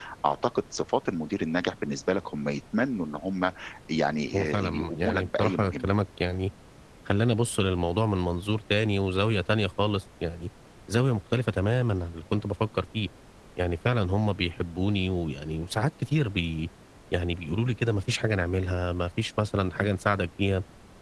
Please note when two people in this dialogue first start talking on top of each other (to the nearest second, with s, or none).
4 s